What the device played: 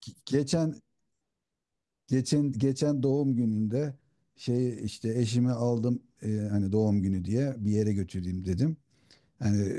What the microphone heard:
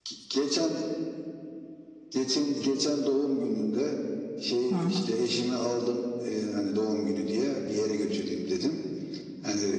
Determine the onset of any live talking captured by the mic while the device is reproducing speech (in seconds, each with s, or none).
4.7 s